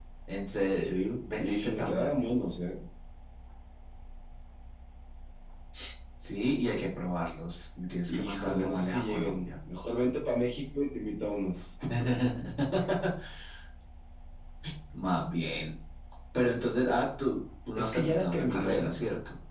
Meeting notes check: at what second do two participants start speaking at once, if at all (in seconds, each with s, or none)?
0.8 s